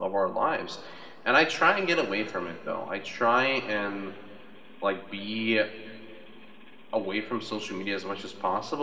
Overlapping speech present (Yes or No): No